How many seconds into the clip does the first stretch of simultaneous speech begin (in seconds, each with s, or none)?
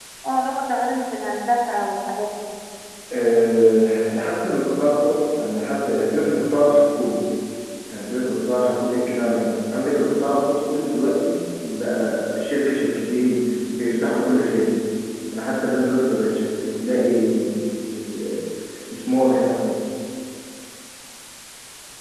none